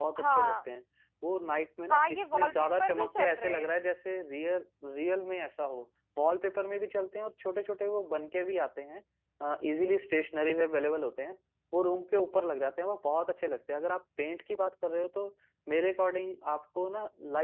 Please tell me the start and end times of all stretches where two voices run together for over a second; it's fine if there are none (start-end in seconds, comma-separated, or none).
1.9-3.7